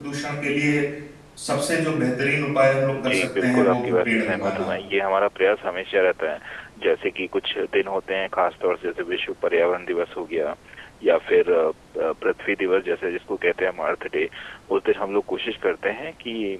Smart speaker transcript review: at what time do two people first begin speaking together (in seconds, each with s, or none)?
2.9 s